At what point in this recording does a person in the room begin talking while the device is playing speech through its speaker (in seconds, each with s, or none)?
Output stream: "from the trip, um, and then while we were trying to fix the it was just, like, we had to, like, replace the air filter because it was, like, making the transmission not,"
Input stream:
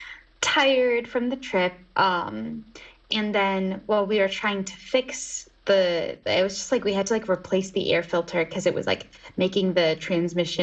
none